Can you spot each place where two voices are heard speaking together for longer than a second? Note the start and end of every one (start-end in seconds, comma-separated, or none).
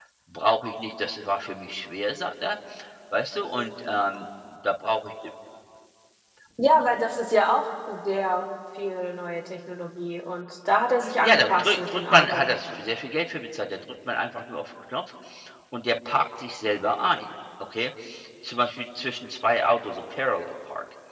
11.2-12.4